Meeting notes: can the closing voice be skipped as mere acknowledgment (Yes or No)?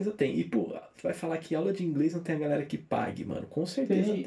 No